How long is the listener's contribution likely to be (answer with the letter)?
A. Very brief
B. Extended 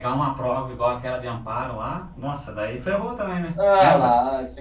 B